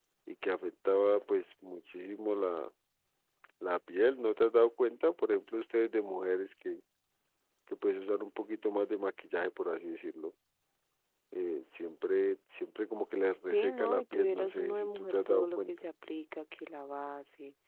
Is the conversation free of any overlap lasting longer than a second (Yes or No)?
No